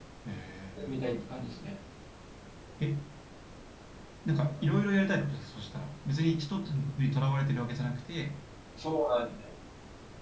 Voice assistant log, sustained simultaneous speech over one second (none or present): none